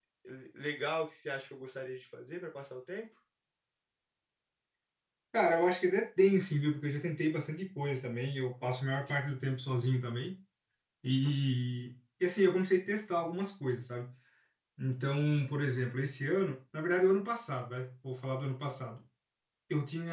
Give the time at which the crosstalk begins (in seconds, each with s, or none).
none